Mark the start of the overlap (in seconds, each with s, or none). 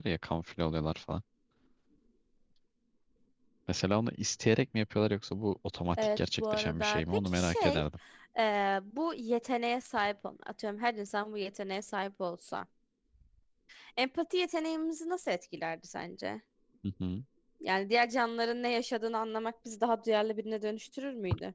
5.9 s